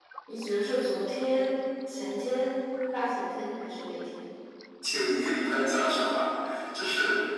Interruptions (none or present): none